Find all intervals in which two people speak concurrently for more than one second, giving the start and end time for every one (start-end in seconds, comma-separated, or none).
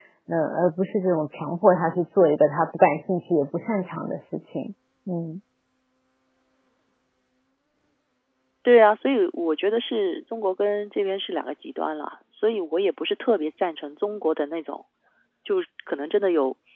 none